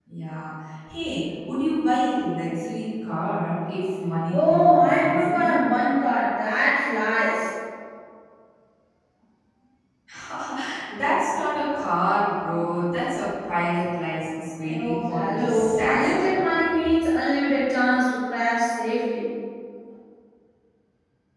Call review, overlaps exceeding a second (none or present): present